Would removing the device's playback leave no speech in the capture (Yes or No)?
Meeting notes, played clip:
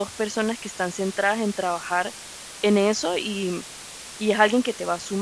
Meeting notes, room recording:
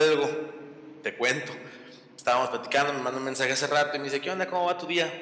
No